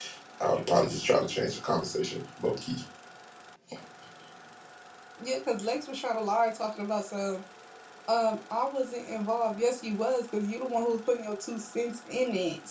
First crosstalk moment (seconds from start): none

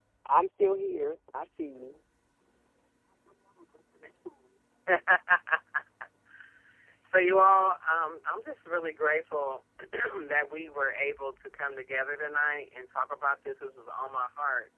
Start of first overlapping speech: none

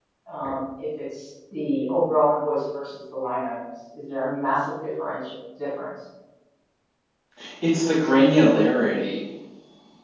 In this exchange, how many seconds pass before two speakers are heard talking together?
none

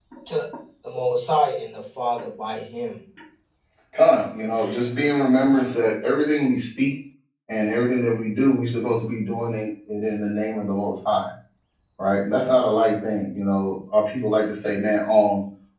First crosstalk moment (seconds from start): none

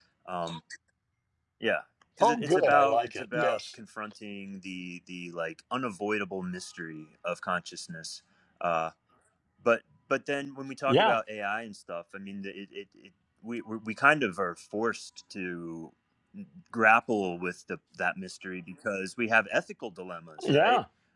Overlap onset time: 2 s

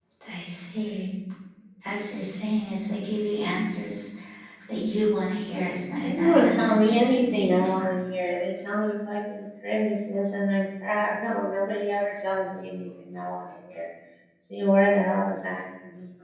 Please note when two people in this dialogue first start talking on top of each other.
6 s

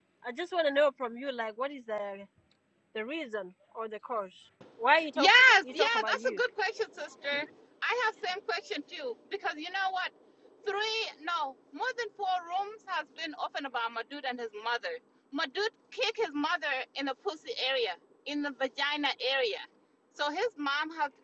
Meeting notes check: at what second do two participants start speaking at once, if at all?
5 s

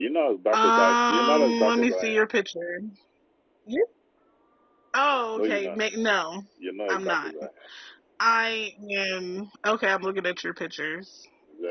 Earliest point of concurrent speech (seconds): 1 s

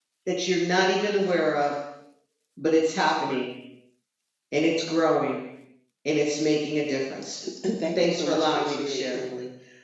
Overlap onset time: 8 s

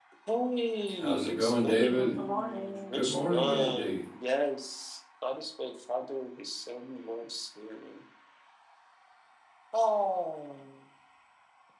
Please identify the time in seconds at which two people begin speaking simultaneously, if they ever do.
1 s

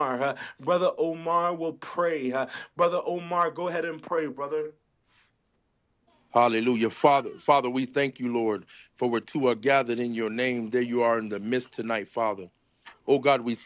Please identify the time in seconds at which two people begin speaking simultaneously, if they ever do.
none

